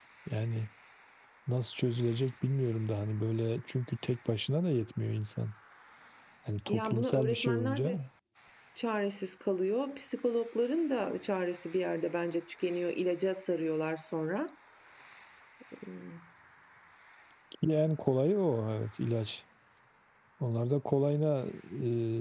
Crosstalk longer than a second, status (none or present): present